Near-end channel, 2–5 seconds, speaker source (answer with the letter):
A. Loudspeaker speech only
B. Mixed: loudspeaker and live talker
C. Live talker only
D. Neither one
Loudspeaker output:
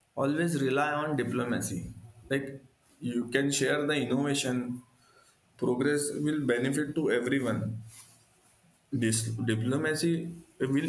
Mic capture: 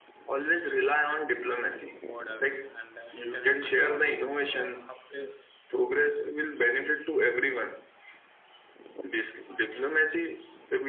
B